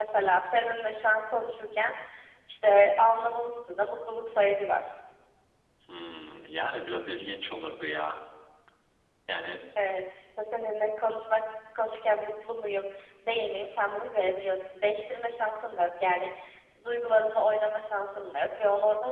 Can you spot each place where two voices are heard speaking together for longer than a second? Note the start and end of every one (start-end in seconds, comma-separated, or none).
none